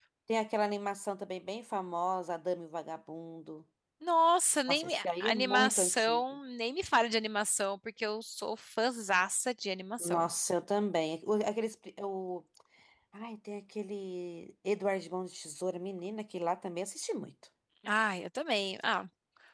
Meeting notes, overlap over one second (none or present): present